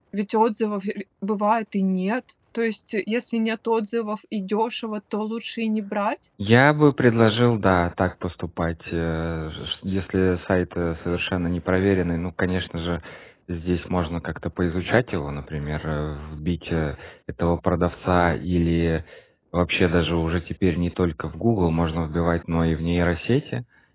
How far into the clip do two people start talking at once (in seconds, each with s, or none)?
none